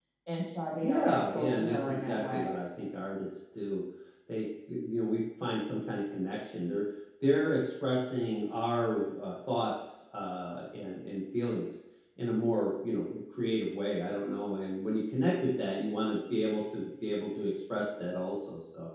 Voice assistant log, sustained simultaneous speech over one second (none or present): present